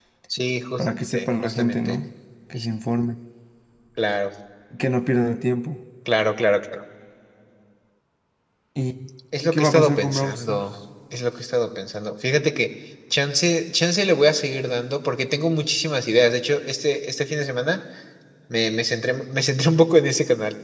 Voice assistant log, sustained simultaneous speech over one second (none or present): present